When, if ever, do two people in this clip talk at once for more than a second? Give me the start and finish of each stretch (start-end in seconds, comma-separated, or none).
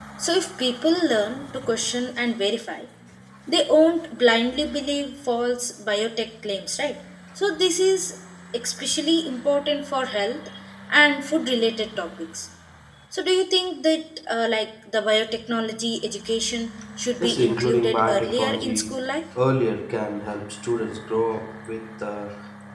17.2-19.0